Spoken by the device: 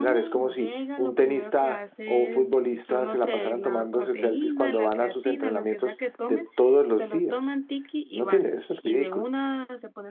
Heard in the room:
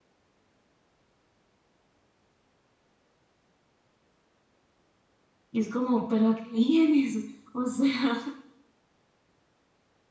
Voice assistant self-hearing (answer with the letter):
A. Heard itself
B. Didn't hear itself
B